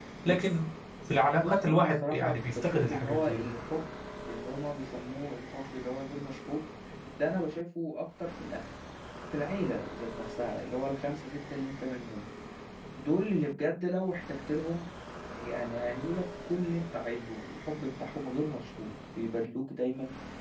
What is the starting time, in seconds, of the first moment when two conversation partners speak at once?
1.4 s

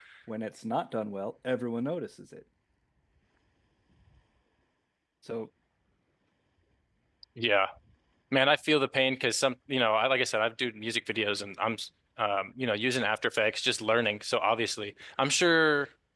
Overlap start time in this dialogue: none

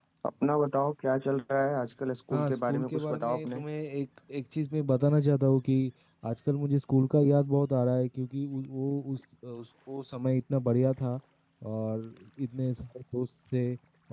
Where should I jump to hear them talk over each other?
2.3 s

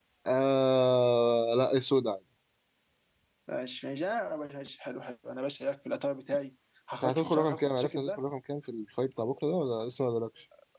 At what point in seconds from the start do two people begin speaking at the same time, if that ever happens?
7.0 s

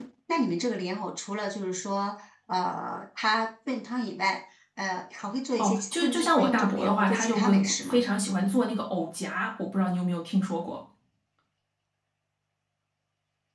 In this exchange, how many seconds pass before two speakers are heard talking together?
5.6 s

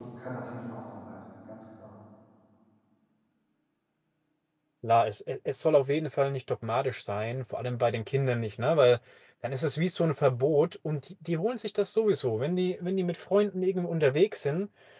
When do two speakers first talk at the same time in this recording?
none

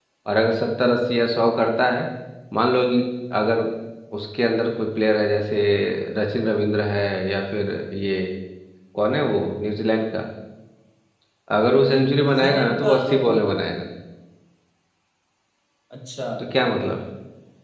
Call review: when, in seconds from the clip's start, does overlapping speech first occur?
12.2 s

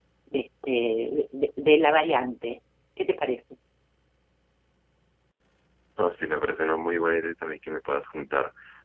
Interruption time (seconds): none

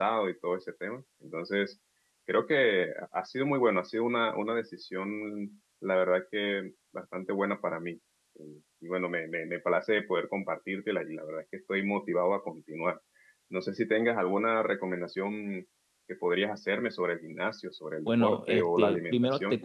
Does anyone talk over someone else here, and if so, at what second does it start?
18.1 s

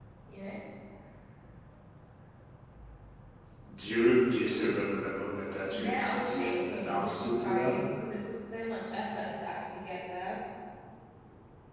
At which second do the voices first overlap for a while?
5.7 s

